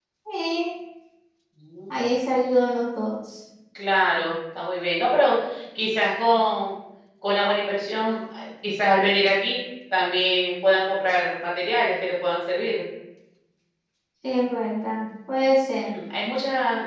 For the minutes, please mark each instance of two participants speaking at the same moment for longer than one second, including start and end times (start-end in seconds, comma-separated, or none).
none